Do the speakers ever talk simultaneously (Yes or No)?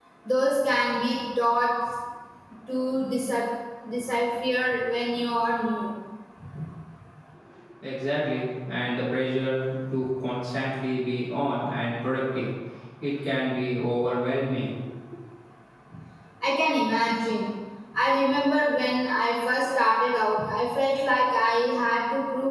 No